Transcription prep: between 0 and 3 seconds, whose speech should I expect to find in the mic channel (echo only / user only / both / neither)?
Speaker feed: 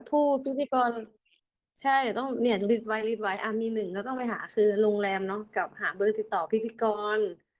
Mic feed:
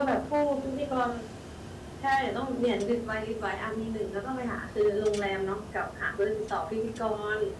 echo only